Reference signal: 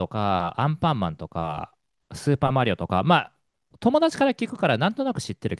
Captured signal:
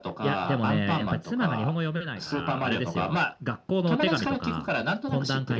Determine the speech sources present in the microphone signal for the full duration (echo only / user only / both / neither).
both